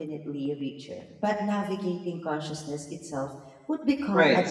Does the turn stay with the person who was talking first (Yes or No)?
No